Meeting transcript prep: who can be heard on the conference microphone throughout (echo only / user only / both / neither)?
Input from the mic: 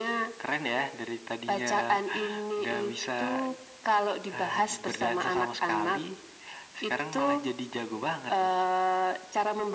echo only